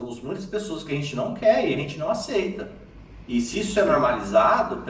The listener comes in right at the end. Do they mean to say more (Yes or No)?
No